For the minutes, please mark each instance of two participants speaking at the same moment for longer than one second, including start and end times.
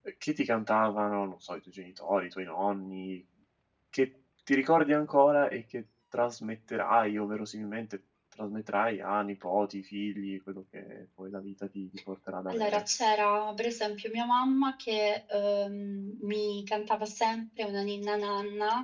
none

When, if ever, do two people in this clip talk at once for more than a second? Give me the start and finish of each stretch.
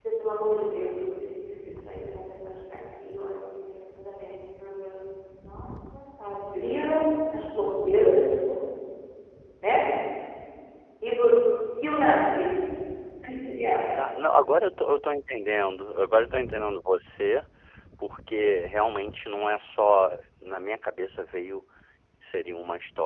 none

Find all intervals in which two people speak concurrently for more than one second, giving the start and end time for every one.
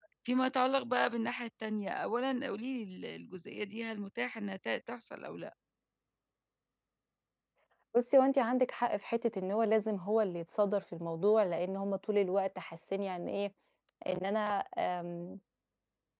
none

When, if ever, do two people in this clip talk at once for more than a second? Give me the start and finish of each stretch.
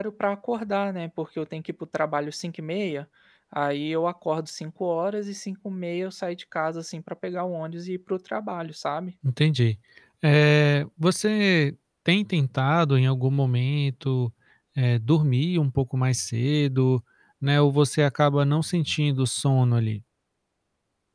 none

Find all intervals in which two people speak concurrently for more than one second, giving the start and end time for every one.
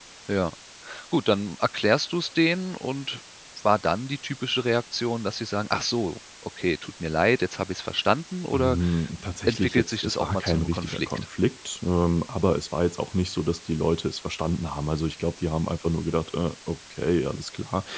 9.4-11.2

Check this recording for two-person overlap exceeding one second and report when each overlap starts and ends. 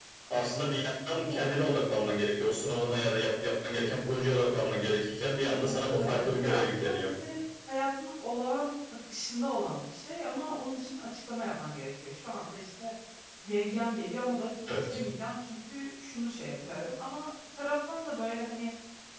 5.4-7.1

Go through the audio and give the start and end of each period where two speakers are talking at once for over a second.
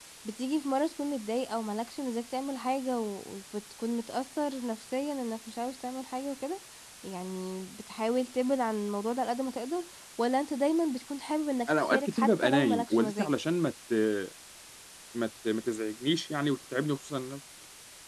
11.7-13.3

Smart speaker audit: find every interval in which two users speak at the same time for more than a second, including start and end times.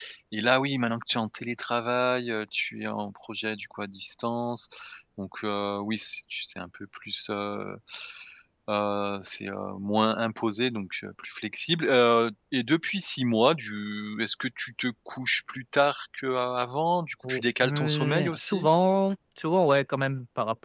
17.2-18.7

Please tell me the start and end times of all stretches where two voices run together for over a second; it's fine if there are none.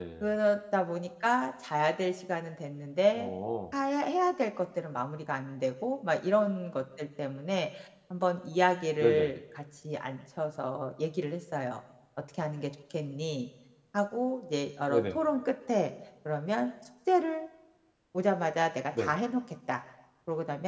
none

